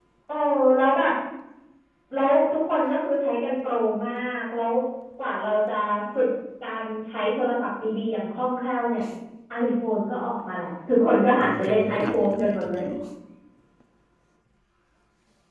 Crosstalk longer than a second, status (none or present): present